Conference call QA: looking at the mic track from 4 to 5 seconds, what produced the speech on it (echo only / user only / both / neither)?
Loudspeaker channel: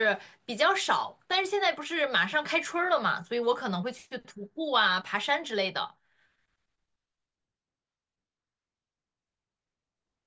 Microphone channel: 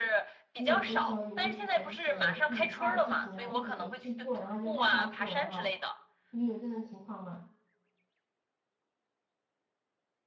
both